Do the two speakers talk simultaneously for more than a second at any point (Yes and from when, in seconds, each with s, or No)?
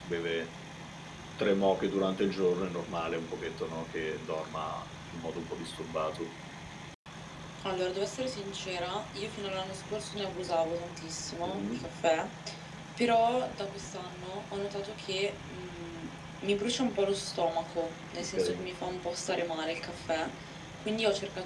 No